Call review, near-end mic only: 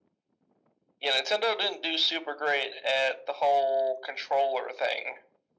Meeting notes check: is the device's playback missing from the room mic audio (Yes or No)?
No